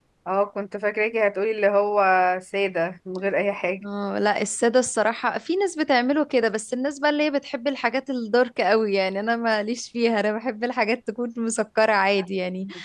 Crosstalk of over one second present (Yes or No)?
No